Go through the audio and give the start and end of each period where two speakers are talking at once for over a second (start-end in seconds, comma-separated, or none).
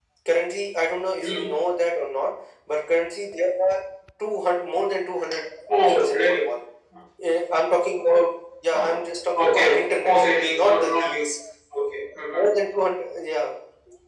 9.4-11.2